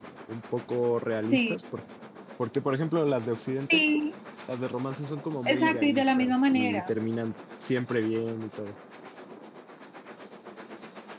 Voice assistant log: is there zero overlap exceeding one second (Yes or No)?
No